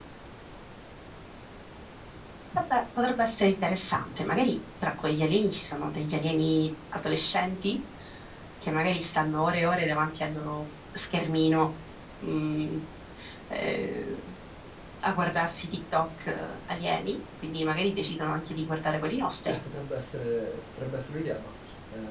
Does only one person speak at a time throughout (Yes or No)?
Yes